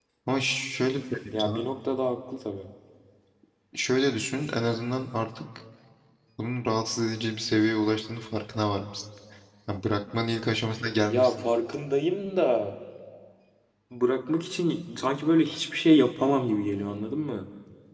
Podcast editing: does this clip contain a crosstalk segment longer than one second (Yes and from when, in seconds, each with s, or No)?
No